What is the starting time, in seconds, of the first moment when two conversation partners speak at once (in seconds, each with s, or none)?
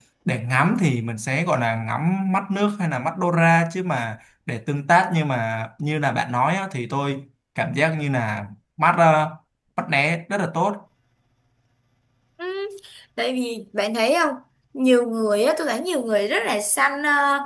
none